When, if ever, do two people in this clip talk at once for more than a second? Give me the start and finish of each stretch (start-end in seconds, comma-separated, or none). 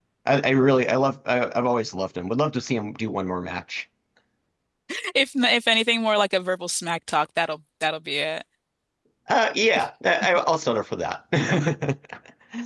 none